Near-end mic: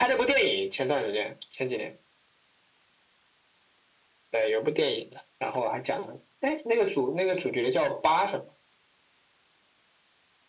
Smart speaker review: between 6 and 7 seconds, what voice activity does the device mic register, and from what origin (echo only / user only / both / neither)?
echo only